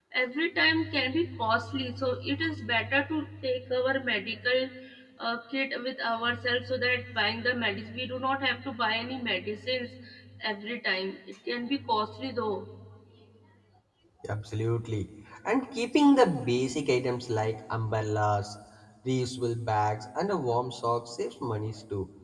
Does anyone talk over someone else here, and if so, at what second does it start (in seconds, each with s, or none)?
none